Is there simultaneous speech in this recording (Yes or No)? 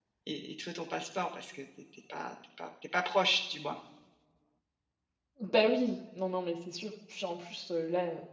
No